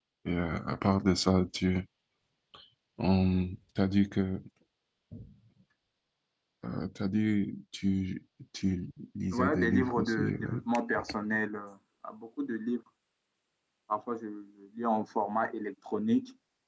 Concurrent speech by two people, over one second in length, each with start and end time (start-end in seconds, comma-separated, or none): 9.3-10.6